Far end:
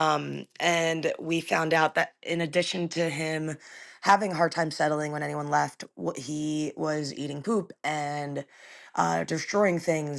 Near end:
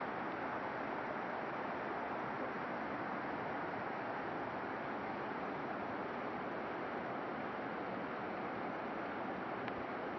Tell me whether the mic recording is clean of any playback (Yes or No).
Yes